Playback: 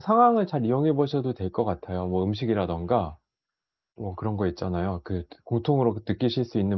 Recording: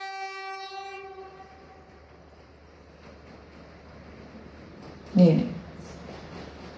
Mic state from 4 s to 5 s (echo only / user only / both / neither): neither